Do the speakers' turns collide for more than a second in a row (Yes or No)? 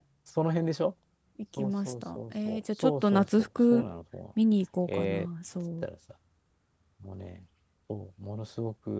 Yes